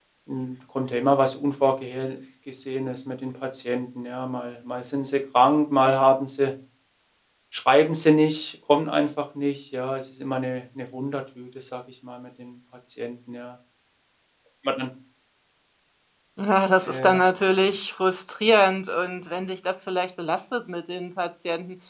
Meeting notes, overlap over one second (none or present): none